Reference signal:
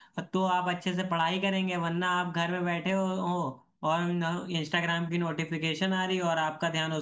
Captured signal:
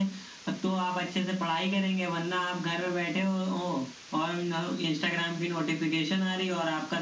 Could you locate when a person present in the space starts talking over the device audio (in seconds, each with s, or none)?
none